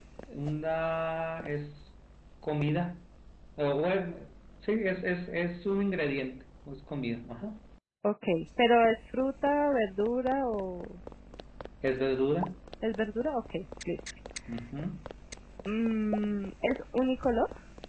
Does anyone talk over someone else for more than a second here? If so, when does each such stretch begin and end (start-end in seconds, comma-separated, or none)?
none